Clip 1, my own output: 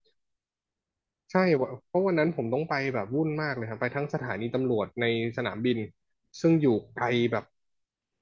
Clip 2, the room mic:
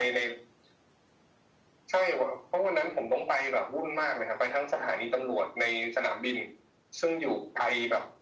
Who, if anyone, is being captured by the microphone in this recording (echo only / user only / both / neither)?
echo only